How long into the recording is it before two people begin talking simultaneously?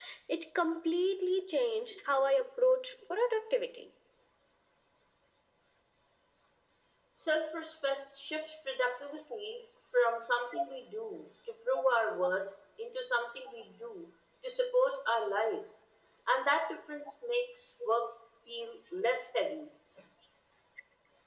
none

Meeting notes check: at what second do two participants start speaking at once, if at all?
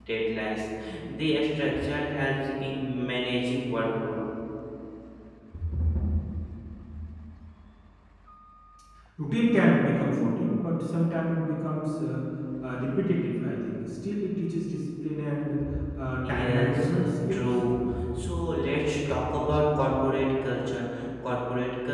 16.2 s

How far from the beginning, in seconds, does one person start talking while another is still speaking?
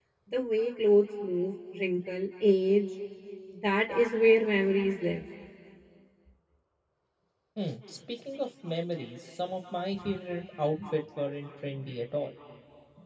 none

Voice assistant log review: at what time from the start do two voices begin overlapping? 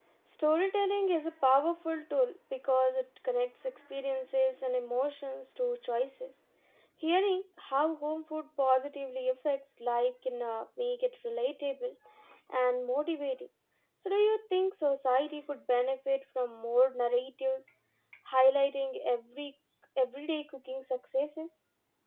none

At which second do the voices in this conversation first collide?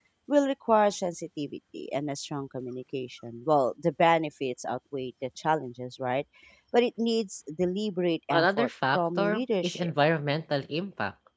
8.3 s

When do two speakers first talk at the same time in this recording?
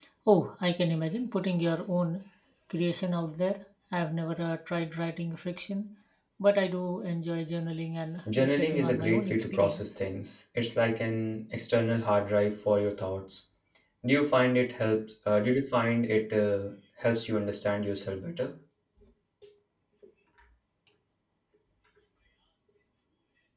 8.2 s

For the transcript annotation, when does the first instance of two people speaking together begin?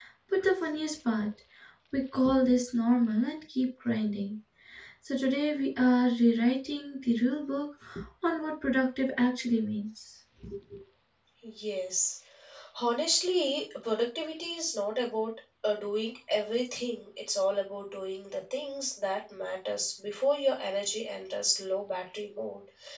none

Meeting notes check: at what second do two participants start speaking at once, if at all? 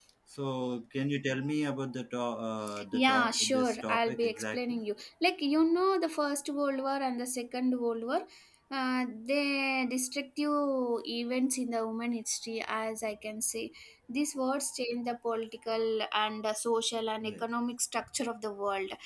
2.9 s

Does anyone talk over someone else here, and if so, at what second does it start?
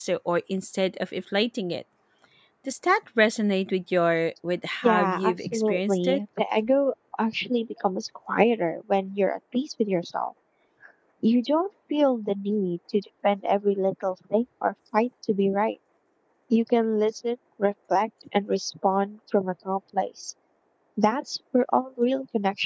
4.8 s

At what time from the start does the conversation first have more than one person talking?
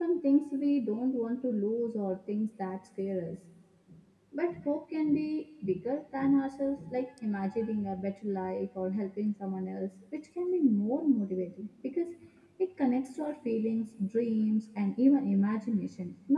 none

